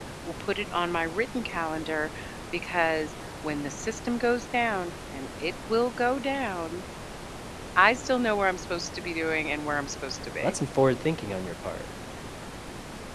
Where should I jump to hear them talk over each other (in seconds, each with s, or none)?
none